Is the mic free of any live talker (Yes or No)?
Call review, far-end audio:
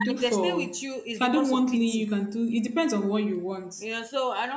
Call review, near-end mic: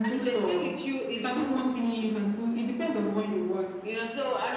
Yes